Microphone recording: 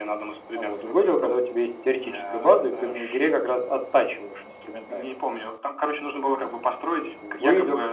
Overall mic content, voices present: echo only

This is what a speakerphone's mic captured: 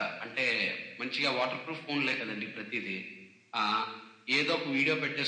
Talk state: echo only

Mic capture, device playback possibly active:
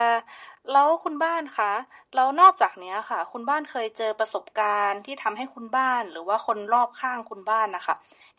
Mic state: echo only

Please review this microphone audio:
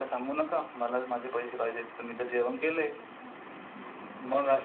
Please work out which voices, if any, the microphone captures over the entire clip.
echo only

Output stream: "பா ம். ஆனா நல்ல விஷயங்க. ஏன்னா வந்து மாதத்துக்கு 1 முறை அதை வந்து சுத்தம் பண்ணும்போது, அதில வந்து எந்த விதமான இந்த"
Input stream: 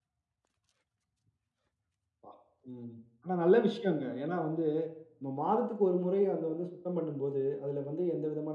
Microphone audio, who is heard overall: echo only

